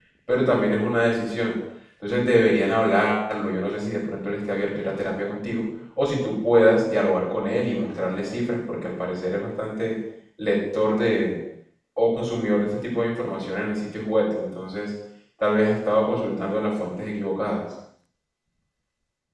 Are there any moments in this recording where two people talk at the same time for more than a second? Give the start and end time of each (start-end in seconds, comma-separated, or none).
none